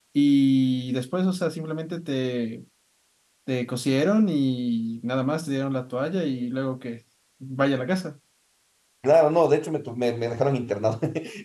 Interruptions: none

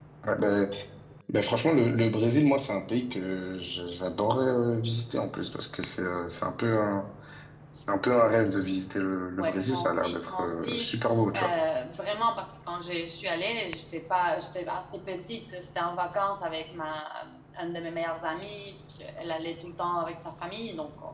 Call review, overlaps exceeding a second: present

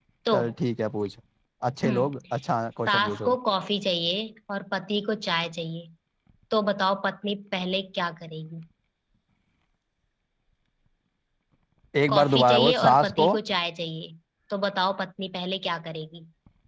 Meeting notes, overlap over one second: present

